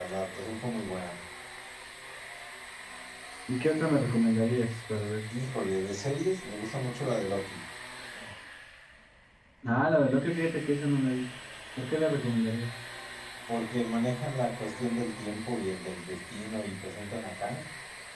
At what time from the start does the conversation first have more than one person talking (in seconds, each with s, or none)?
none